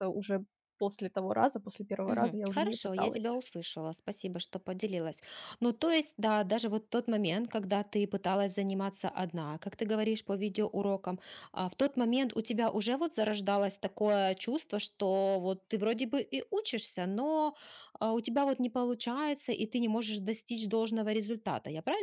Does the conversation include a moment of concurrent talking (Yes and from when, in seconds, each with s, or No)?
Yes, from 2.0 s